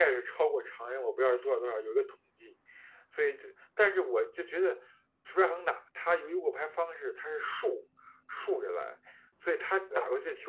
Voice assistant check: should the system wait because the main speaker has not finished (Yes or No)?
Yes